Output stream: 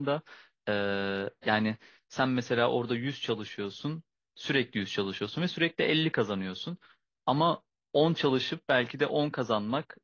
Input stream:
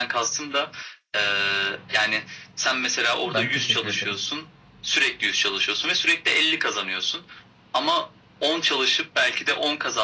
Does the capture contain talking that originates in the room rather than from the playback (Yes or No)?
Yes